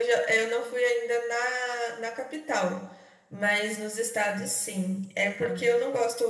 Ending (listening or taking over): listening